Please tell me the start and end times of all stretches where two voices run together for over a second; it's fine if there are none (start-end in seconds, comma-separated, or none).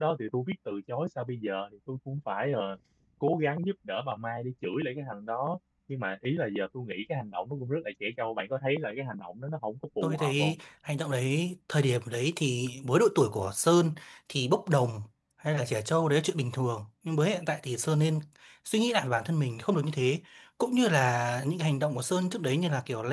none